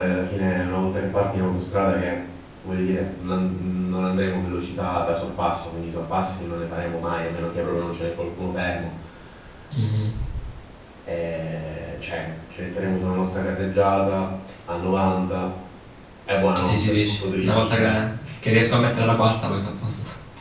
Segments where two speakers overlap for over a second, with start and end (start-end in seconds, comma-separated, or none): 16.6-17.9